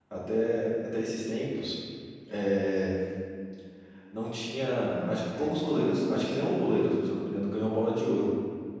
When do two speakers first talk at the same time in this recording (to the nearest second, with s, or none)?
5 s